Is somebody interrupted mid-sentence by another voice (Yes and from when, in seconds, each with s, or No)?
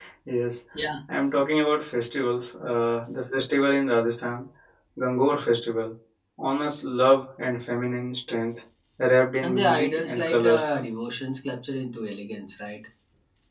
Yes, from 9.4 s